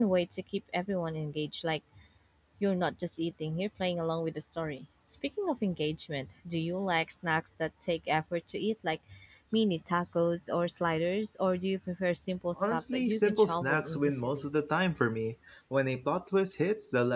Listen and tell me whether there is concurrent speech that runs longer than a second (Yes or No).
Yes